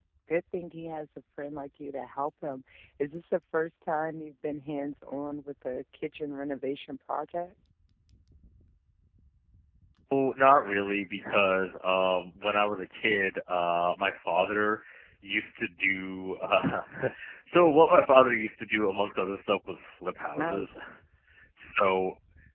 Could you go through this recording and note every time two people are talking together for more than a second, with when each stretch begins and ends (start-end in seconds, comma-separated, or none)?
none